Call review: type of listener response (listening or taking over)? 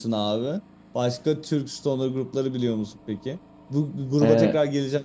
listening